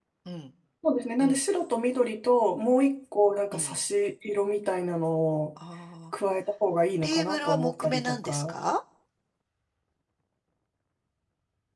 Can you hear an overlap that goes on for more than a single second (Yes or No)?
Yes